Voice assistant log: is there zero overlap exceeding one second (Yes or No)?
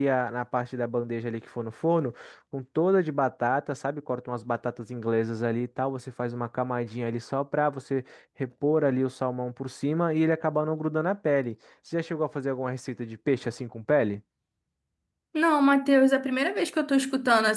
Yes